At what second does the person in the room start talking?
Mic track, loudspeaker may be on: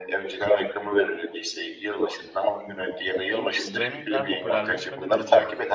3.2 s

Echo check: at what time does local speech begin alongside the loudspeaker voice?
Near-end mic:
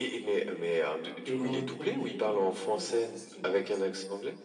1.3 s

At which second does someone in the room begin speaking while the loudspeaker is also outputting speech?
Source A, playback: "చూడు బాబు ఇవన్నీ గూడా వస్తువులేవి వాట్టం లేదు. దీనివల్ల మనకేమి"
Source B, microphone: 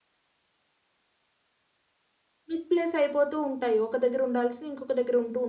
2.5 s

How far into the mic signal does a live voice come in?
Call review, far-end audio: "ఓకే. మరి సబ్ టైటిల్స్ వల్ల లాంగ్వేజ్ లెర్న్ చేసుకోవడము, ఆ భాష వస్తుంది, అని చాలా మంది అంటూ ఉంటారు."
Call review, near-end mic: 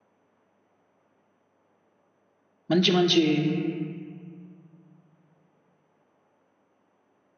2.7 s

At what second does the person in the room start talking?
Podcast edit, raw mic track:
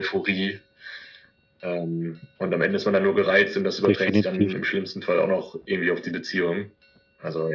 3.8 s

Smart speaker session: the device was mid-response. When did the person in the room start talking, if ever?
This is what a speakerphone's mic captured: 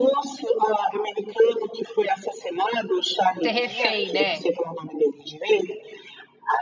3.4 s

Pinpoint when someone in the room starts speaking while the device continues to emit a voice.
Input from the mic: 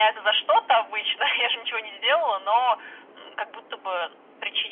none

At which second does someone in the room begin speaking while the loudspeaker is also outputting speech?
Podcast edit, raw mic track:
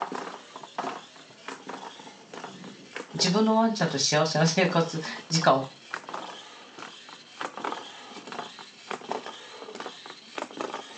3.1 s

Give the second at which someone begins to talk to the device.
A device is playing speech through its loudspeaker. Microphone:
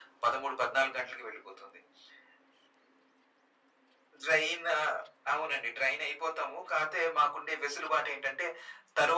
none

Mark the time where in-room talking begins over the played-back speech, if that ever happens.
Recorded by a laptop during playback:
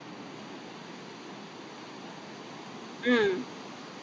3.0 s

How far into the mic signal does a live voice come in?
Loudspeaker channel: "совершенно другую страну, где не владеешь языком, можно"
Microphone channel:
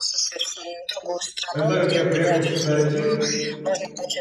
1.5 s

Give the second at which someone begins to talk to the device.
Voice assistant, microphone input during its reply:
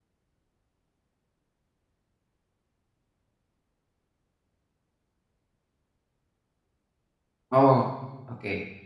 7.5 s

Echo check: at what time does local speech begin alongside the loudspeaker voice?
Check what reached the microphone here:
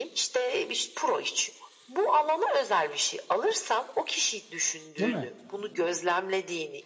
5.0 s

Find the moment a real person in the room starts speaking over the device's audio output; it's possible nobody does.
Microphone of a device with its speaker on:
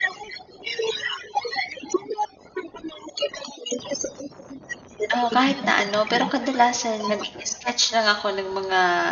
5.1 s

